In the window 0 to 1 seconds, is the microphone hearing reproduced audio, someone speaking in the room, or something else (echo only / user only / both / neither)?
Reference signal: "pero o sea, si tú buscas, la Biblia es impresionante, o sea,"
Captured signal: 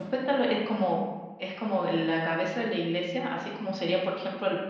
user only